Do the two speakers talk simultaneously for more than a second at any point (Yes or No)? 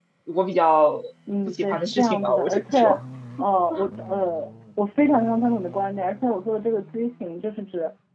Yes